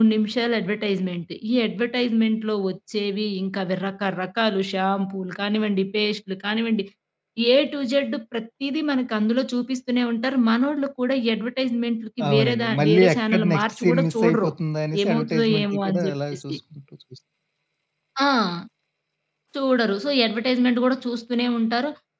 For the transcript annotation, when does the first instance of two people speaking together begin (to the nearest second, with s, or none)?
12 s